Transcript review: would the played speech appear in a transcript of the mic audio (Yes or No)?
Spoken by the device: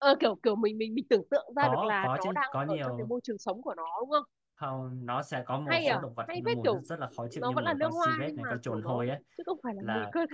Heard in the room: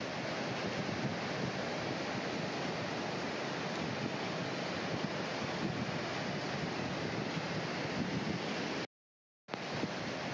No